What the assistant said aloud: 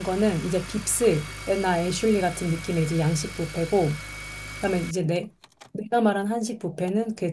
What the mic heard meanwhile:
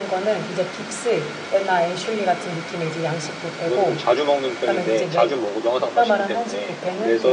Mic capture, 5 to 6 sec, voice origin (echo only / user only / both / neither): both